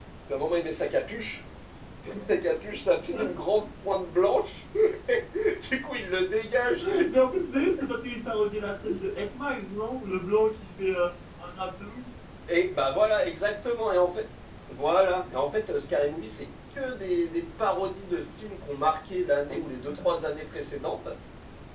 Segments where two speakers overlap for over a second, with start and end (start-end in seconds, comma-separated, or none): none